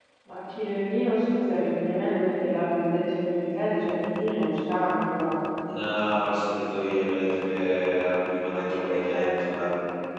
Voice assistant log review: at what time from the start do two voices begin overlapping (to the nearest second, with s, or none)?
8 s